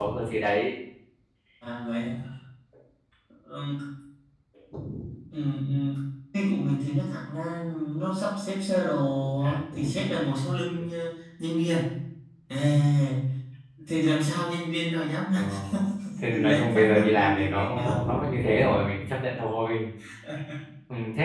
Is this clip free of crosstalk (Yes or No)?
No